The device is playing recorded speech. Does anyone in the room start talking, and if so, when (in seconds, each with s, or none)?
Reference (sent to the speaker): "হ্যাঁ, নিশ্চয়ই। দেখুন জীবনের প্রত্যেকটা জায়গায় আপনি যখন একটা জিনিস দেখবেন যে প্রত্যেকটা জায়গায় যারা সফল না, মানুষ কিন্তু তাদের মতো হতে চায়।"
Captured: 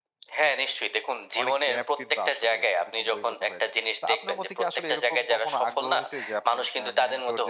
1.4 s